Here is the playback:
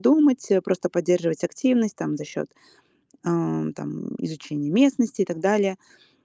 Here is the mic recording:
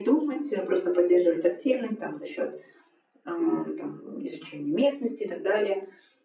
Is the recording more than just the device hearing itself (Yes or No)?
No